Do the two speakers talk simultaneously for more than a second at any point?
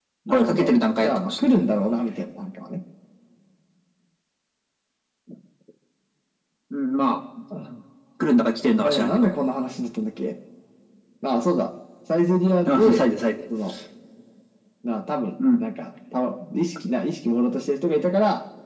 Yes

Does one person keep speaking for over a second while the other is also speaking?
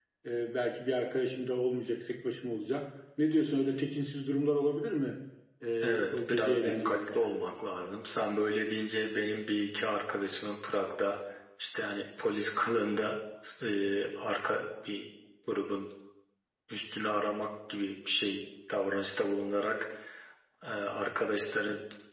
Yes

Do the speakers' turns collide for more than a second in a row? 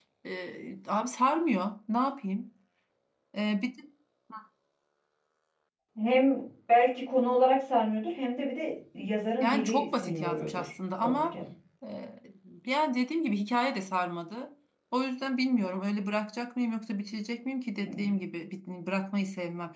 Yes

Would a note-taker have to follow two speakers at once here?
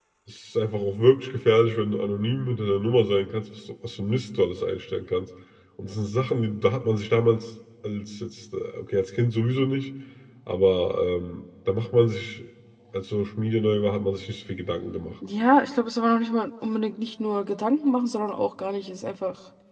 No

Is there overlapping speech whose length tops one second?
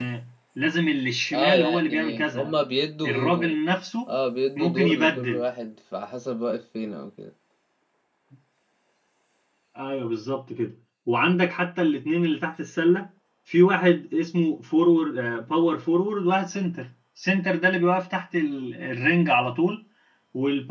Yes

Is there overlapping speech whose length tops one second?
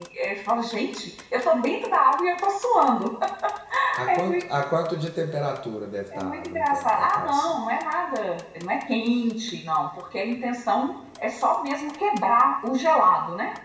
Yes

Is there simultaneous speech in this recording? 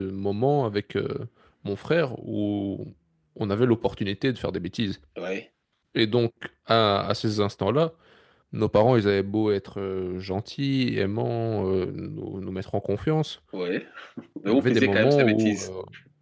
Yes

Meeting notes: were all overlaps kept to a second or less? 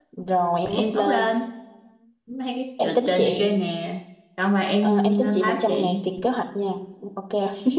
No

